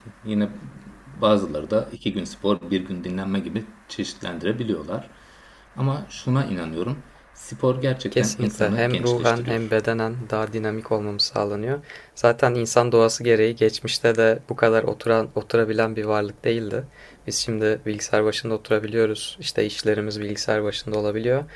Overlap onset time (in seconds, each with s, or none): 8.1 s